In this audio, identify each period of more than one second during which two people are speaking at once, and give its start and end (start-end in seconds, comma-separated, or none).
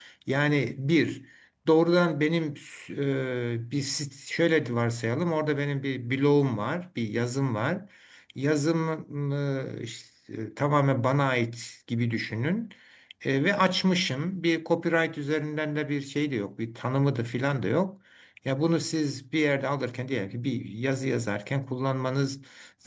none